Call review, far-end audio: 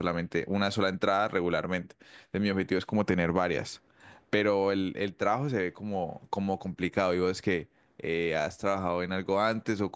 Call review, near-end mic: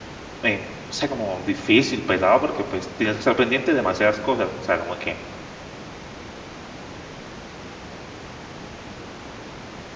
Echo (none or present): none